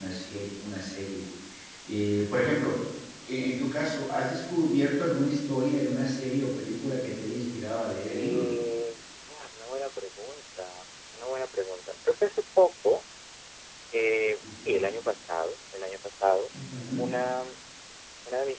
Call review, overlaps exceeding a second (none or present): none